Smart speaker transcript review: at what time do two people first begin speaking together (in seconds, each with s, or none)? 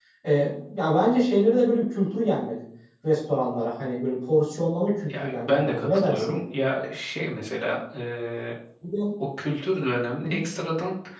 5.1 s